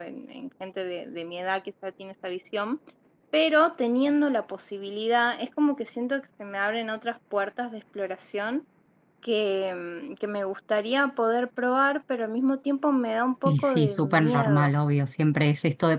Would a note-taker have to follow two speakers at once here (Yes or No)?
Yes